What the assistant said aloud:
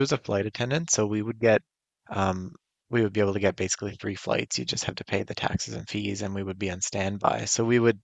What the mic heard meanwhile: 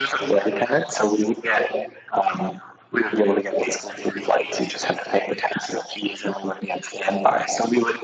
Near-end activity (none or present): none